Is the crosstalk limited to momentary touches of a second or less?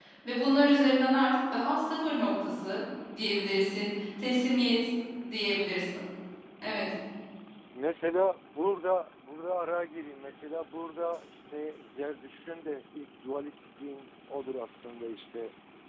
Yes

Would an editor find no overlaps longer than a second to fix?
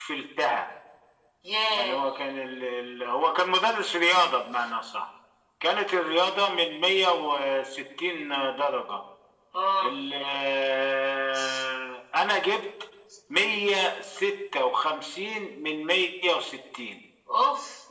Yes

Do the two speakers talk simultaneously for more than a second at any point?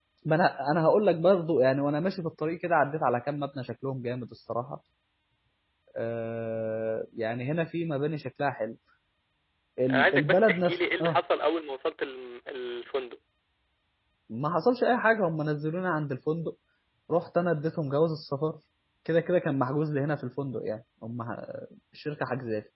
Yes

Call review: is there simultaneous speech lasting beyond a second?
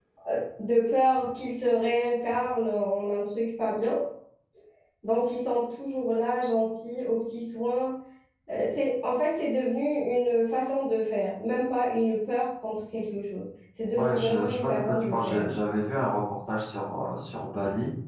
Yes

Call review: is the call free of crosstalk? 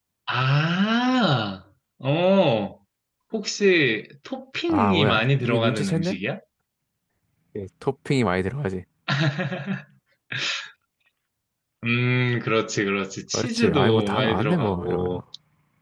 No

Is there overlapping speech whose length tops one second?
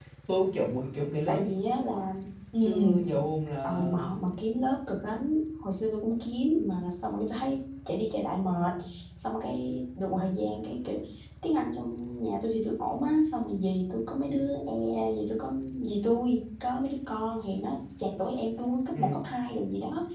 No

